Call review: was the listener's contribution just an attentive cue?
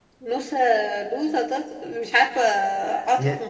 No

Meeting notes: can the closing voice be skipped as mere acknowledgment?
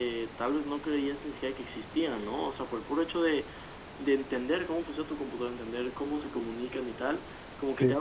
Yes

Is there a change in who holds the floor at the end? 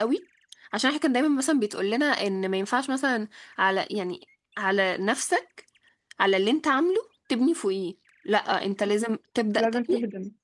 No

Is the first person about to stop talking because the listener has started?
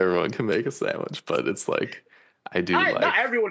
Yes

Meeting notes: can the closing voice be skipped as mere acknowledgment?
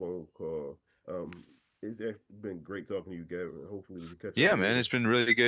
No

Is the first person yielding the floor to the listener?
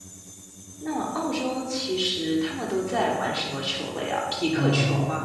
Yes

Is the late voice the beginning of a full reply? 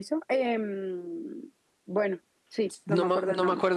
Yes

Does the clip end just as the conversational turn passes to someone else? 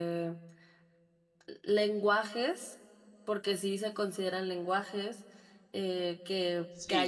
Yes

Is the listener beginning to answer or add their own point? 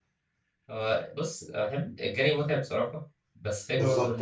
No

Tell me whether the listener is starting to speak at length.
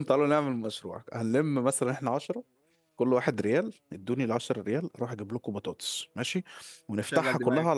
No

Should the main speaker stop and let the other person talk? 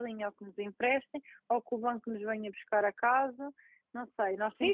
Yes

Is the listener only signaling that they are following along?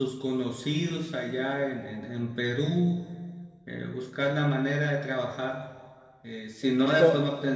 Yes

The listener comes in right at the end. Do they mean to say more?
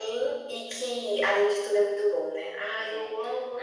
Yes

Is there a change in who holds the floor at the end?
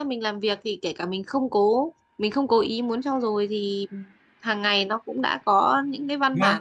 No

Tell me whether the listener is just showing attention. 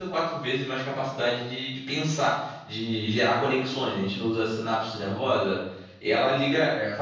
Yes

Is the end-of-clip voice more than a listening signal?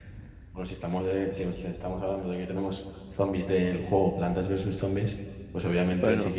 No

